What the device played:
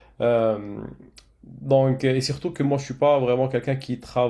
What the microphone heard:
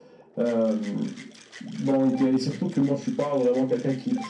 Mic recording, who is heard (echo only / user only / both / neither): echo only